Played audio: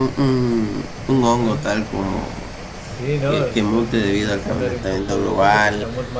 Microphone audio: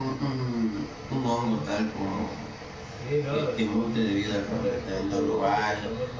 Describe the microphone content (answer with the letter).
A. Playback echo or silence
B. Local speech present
A